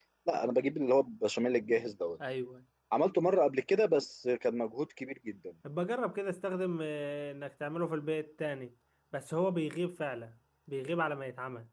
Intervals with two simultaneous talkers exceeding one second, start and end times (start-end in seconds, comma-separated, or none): none